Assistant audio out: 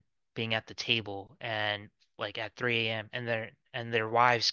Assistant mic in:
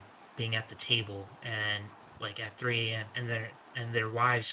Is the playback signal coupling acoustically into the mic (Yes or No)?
Yes